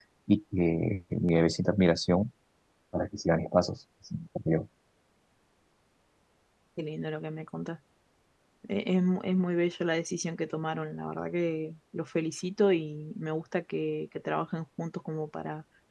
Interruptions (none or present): none